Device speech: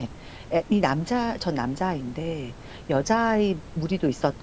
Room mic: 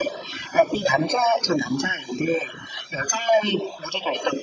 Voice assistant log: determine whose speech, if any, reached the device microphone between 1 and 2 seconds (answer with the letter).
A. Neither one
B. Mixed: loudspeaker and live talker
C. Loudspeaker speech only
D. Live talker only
C